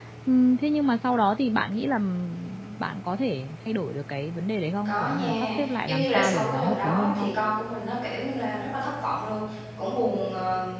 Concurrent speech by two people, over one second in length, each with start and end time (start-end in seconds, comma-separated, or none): 4.8-7.3